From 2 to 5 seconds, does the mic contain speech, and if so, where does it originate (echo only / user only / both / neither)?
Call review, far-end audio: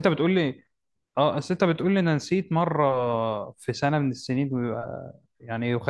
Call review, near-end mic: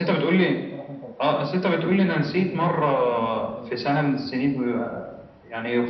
both